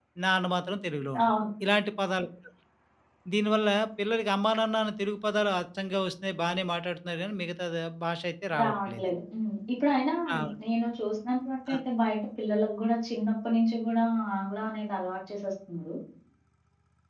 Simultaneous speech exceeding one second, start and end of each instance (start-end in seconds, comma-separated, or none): none